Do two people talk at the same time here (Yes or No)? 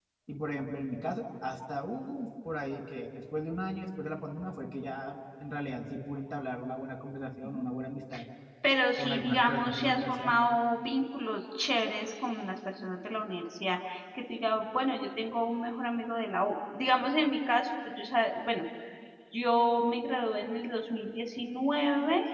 Yes